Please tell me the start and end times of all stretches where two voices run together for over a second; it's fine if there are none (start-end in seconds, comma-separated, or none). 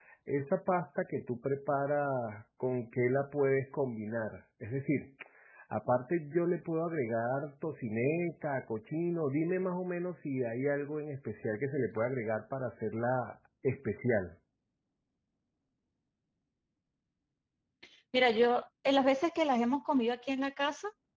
none